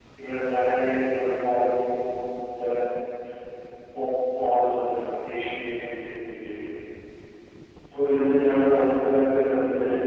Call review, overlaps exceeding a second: none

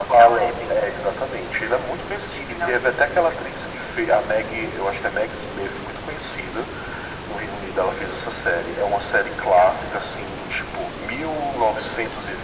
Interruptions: present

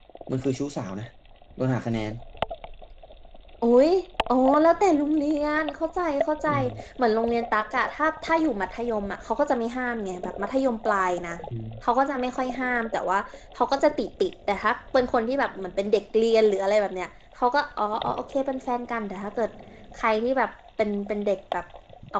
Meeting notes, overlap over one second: none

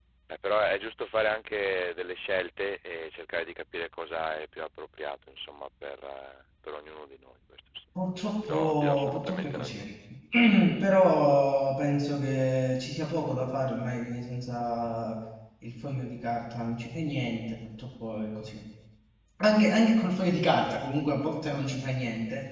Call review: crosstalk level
present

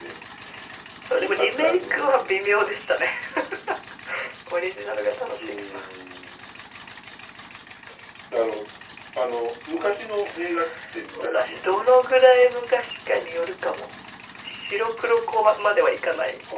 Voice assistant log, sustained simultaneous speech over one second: present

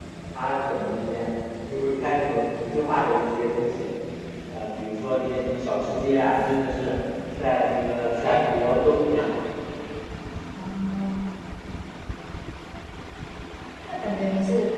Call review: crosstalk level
none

